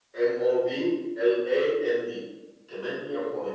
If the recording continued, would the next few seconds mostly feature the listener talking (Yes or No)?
No